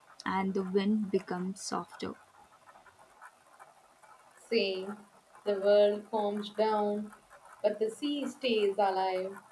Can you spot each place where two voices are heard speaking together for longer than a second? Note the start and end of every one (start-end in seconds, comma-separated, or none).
none